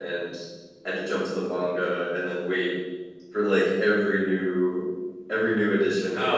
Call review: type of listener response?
taking over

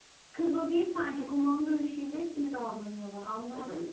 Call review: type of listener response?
taking over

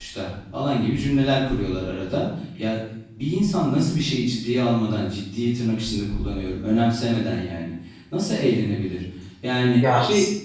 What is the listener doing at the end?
taking over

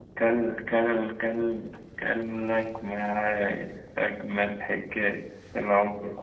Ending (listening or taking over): taking over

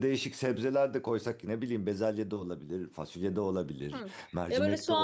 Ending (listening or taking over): taking over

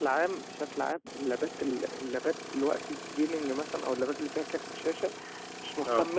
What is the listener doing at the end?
listening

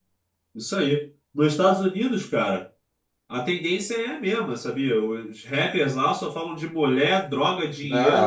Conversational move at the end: taking over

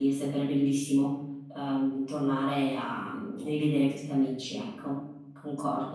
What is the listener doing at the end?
taking over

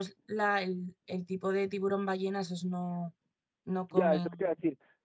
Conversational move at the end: taking over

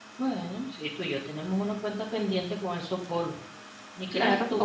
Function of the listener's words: taking over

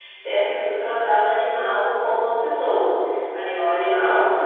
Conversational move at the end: listening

